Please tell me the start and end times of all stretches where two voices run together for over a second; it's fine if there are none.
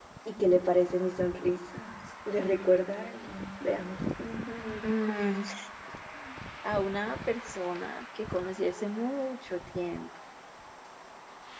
none

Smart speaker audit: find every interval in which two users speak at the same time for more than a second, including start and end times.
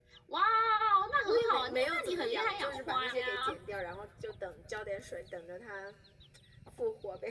1.2-3.6

